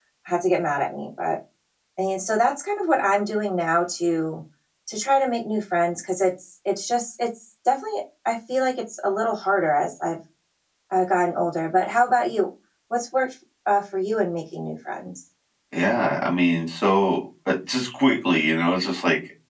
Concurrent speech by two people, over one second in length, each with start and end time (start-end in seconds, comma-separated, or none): none